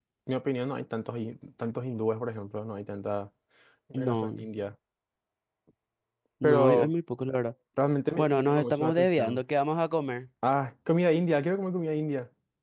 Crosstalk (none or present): present